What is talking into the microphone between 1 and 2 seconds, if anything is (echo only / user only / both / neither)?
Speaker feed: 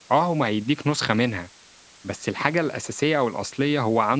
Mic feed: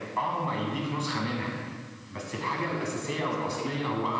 echo only